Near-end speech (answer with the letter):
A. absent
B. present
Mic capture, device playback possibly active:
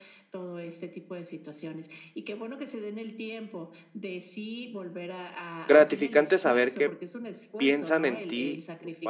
B